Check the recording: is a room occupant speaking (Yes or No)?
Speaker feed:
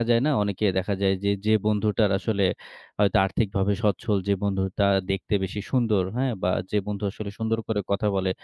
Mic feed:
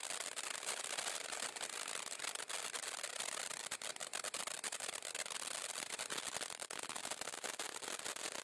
No